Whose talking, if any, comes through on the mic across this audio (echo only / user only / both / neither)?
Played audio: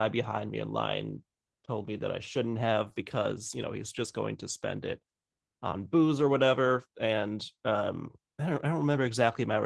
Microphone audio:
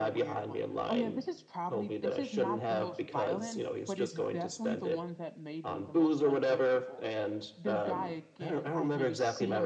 both